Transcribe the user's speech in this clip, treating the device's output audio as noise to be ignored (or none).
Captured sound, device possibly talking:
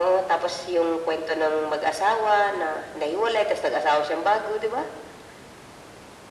none